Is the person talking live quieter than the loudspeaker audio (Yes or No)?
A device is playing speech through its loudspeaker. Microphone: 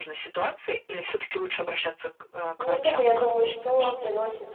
No